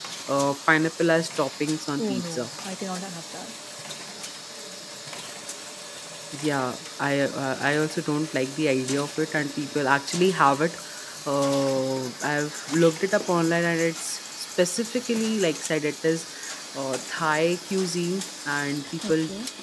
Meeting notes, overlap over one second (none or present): none